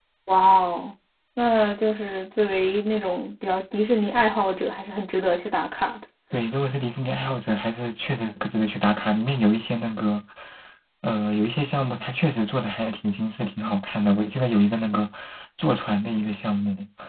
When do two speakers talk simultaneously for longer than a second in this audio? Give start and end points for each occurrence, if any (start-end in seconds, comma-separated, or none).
none